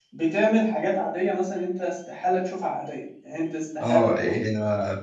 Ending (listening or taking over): taking over